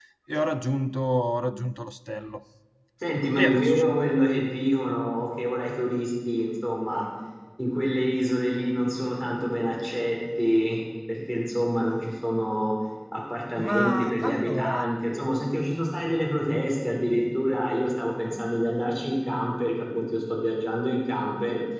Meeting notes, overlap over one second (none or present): present